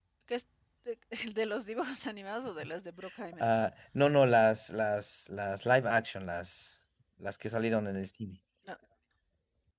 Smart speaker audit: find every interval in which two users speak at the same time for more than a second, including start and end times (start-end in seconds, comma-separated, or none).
none